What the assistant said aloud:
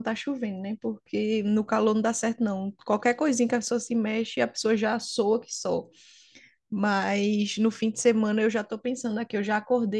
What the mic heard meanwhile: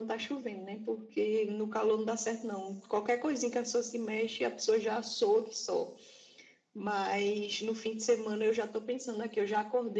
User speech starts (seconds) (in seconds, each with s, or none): none